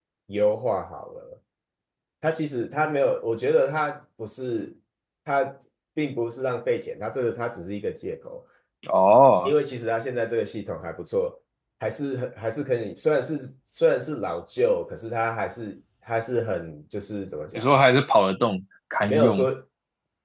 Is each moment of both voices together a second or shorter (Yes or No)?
Yes